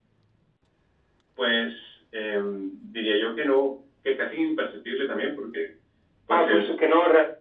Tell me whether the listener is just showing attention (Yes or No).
No